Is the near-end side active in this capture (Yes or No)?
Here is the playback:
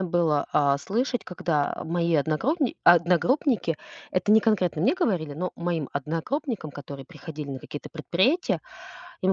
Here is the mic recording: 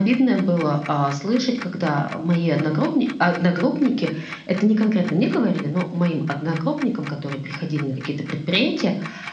No